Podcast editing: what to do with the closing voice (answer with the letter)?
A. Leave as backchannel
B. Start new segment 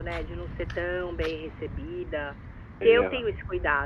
A